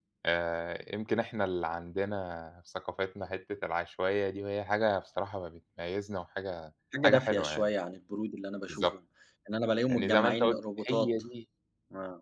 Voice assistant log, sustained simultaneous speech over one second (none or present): present